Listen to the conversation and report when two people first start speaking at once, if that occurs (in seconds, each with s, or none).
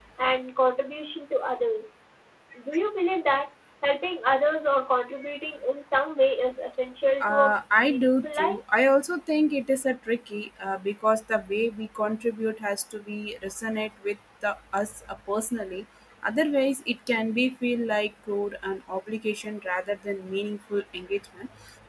7.2 s